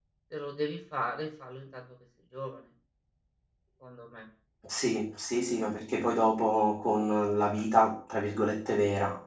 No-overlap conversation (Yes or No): Yes